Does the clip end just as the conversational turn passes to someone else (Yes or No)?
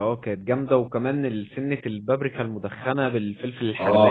Yes